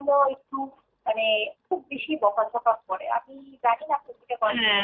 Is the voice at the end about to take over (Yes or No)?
Yes